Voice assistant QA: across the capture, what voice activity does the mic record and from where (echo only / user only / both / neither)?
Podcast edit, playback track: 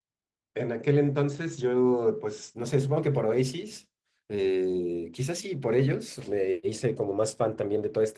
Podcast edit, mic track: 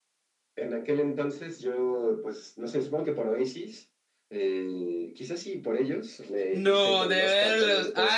both